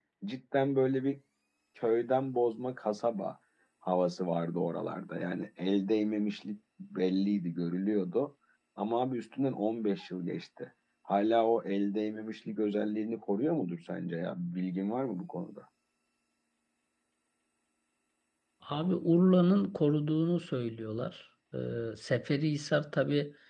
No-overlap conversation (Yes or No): Yes